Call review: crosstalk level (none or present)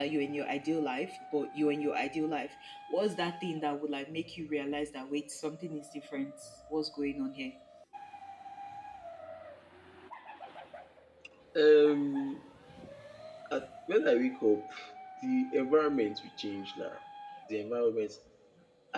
none